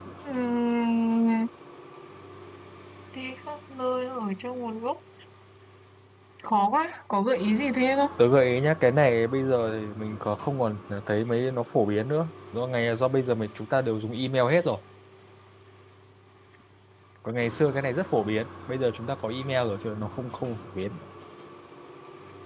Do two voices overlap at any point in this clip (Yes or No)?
No